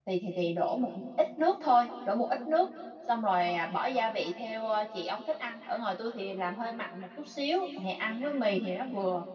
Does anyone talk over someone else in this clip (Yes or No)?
No